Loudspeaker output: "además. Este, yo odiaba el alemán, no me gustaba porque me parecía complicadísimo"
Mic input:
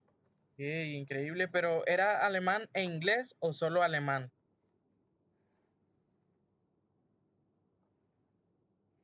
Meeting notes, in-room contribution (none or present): present